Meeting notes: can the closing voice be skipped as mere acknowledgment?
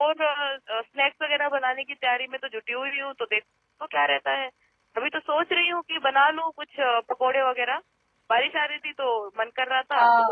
No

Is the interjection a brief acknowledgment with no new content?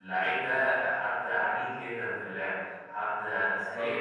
Yes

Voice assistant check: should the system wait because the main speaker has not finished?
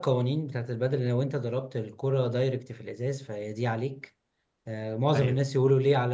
Yes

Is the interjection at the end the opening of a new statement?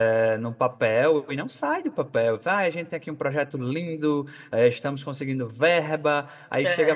No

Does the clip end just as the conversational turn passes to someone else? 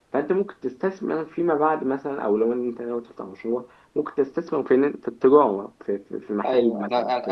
Yes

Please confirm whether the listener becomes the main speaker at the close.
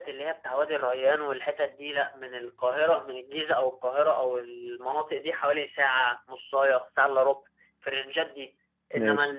No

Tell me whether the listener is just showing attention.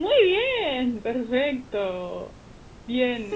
Yes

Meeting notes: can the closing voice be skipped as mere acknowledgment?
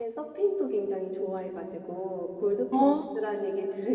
Yes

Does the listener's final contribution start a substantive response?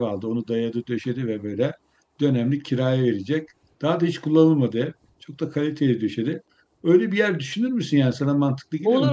Yes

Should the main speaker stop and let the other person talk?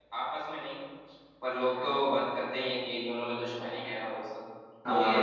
Yes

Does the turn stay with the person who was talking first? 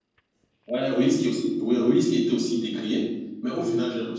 Yes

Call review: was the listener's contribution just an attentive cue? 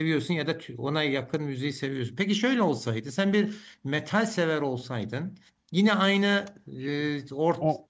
Yes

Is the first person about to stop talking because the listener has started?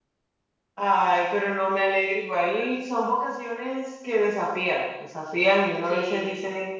No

